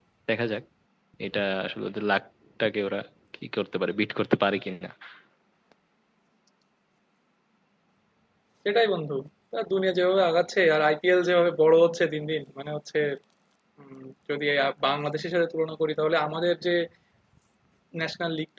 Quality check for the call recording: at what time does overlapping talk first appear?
none

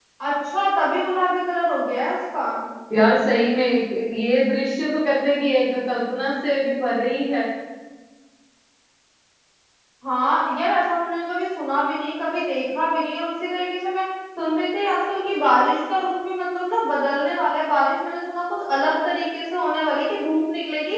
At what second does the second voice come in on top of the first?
none

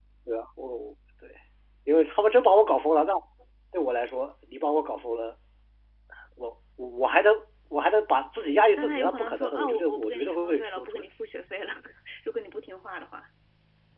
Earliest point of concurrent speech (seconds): 8.7 s

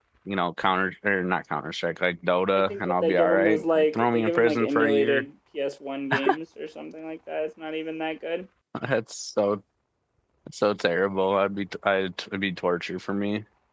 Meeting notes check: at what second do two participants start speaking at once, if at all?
2.5 s

